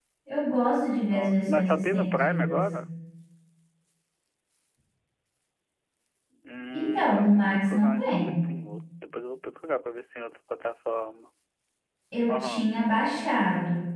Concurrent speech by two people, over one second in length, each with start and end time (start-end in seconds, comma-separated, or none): 1.1-2.6, 6.7-8.4